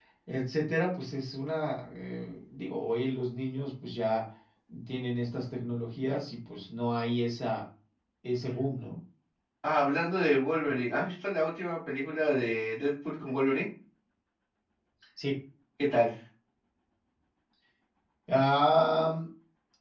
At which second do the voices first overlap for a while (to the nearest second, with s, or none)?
none